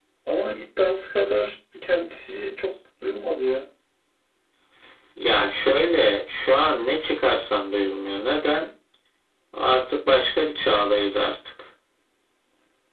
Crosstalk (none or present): none